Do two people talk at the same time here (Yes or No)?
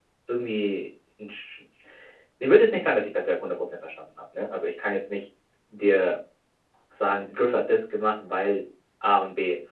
No